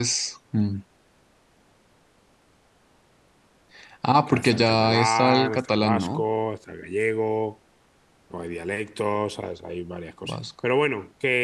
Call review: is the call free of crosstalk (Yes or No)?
No